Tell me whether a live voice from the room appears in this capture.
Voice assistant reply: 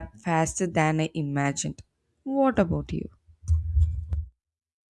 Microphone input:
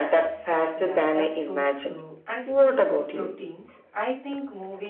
Yes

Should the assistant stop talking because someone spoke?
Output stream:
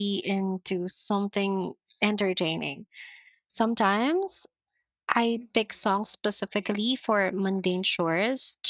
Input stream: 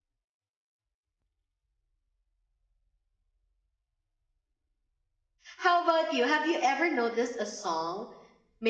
Yes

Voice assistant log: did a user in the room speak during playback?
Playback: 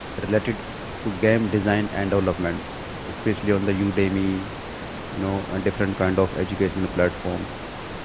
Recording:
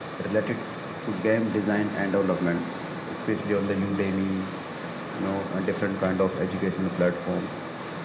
No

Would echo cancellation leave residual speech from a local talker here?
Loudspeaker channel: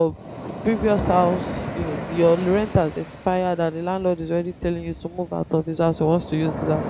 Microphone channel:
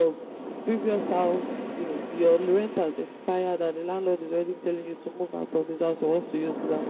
No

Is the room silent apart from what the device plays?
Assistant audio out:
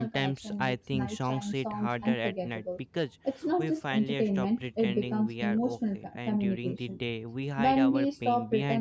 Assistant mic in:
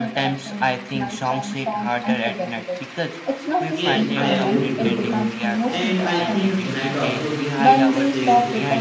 No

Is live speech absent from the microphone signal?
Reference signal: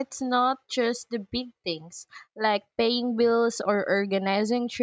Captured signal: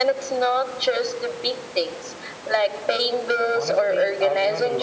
No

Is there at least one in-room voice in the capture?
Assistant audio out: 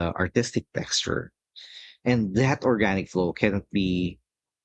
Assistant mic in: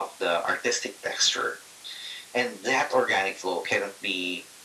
No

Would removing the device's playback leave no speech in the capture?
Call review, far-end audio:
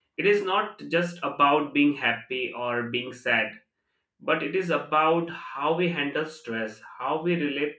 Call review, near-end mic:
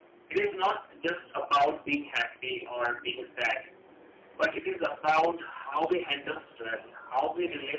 Yes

